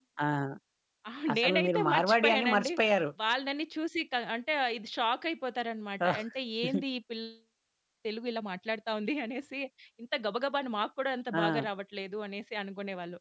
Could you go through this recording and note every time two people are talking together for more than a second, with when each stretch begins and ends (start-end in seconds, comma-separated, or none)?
1.3-2.7